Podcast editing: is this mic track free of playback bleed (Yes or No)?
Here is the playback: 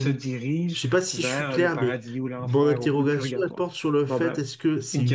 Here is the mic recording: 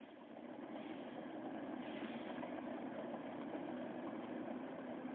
Yes